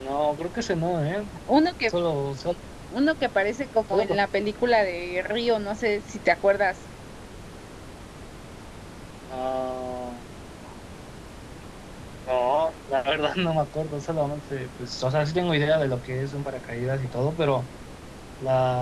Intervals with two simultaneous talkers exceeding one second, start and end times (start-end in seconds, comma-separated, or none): none